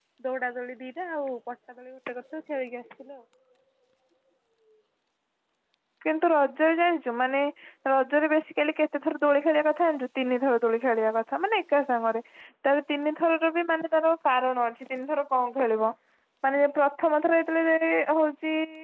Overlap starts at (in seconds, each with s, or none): none